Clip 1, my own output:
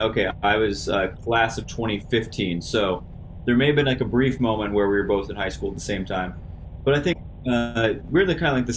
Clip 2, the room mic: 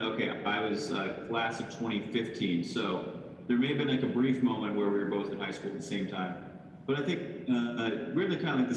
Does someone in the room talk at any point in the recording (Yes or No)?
No